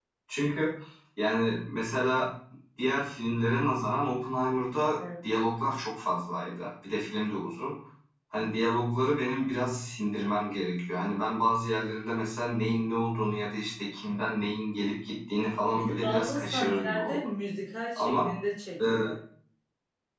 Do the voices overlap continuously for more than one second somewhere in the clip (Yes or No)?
Yes